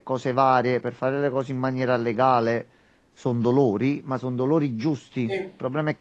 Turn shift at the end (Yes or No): No